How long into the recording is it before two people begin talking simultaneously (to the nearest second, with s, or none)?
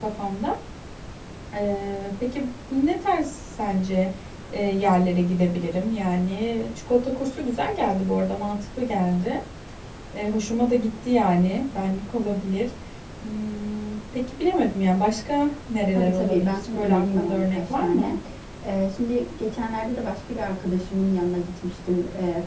16 s